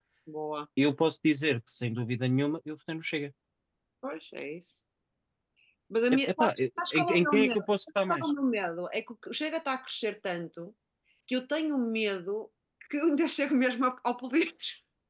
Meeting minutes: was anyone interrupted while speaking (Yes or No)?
Yes